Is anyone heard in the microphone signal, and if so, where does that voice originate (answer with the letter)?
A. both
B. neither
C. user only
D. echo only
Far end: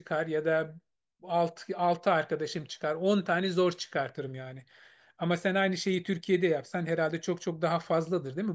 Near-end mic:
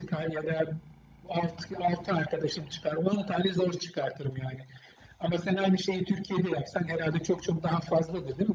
D